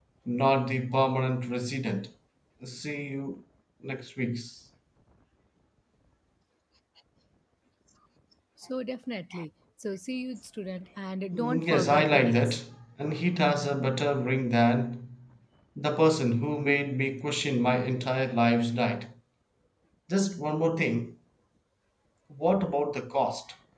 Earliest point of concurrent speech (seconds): 11.3 s

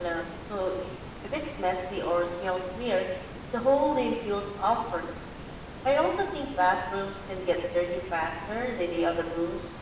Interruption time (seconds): none

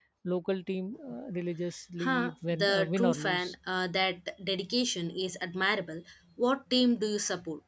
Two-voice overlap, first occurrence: 2.0 s

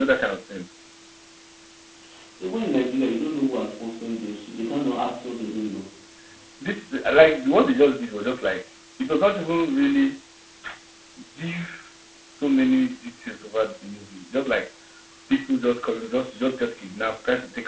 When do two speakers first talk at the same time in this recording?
none

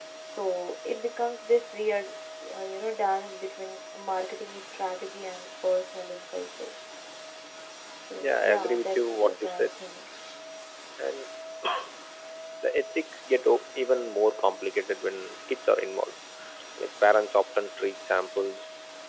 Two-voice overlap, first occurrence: 8.2 s

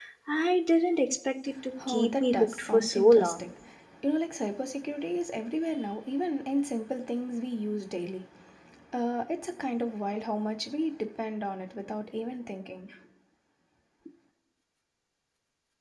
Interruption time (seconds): 1.8 s

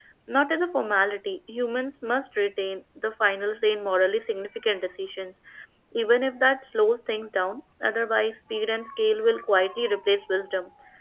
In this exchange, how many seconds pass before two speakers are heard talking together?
none

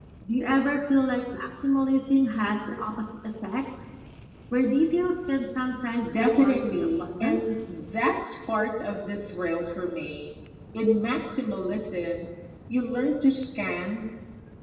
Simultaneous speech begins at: 6.0 s

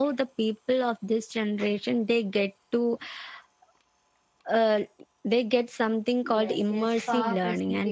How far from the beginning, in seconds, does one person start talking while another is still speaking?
6.2 s

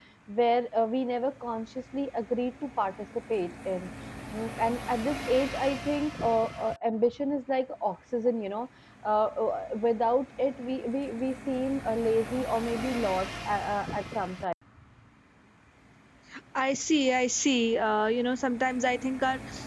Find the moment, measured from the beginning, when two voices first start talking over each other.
none

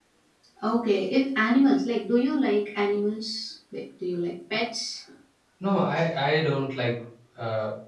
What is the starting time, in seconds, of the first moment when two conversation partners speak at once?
none

